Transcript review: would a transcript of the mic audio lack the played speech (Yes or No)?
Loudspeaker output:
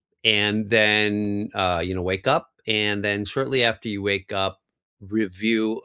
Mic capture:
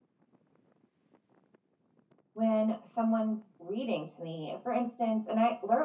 Yes